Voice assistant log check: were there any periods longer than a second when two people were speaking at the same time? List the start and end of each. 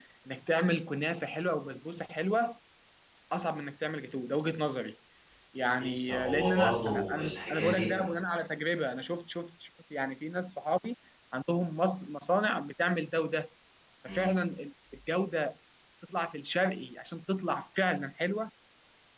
5.8-8.1

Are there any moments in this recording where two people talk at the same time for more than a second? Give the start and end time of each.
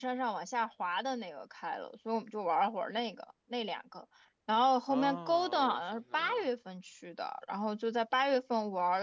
4.9-6.4

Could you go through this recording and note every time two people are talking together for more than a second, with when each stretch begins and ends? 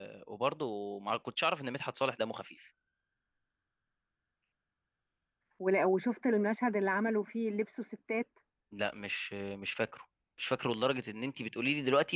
none

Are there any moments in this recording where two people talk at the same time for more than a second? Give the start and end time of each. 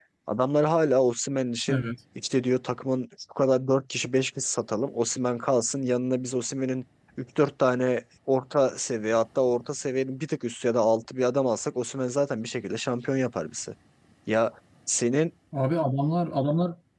none

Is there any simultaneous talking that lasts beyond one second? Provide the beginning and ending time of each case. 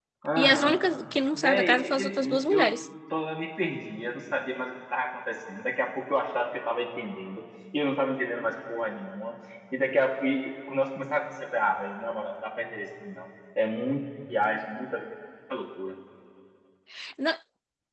1.3-2.7

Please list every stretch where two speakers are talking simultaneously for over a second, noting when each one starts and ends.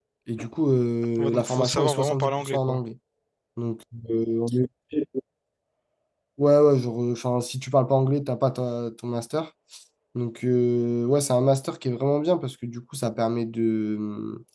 1.2-2.8

